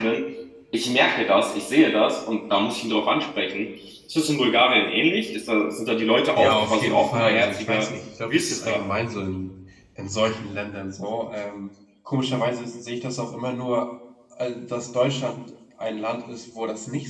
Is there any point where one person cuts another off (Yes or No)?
Yes